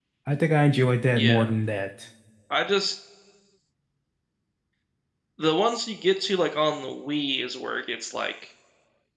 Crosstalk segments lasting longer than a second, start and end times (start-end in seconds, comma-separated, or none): none